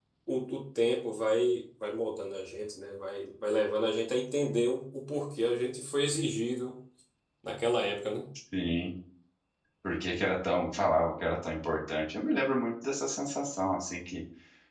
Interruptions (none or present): none